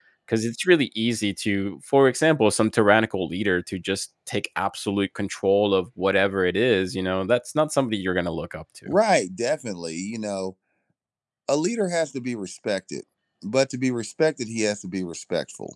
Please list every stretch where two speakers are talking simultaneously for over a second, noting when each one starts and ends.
none

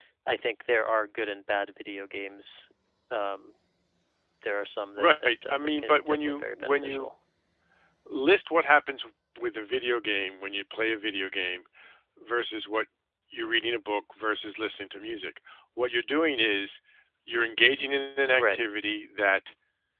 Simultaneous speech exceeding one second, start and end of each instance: 5.0-7.1

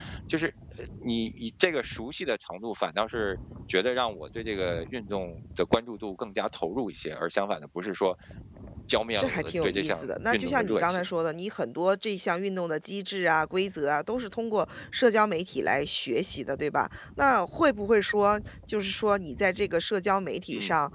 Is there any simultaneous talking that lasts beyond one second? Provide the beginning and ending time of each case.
9.2-11.1

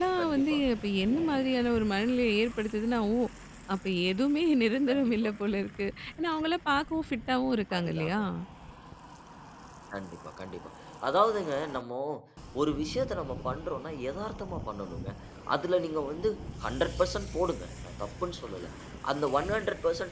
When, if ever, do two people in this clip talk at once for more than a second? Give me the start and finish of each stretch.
none

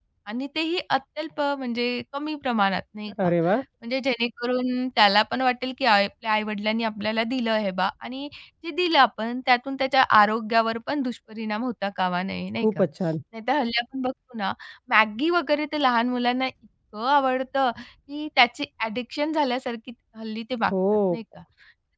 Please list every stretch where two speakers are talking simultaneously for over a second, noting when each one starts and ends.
none

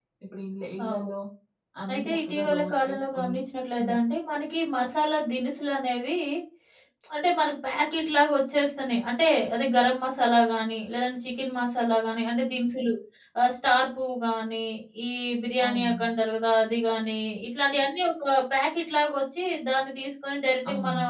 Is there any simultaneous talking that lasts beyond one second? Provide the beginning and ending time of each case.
1.9-3.4

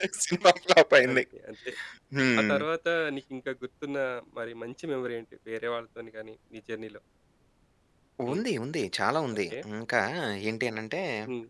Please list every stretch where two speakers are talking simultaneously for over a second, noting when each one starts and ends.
none

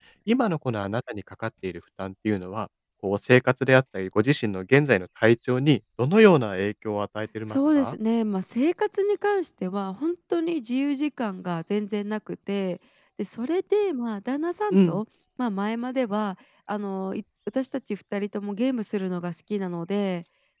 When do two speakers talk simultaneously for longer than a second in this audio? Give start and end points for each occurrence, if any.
none

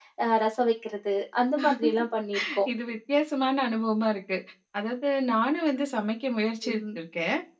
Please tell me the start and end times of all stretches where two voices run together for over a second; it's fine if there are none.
none

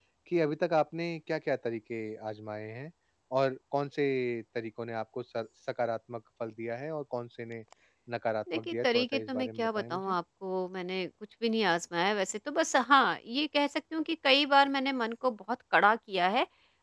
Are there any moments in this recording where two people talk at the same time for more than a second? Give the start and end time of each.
8.5-10.1

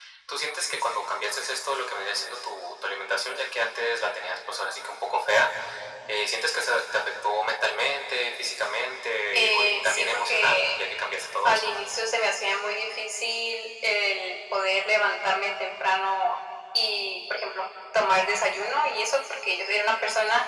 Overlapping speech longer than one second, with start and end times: 9.3-10.8

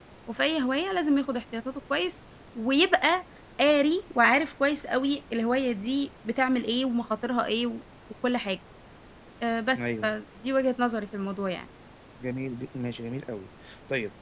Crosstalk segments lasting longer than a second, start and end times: none

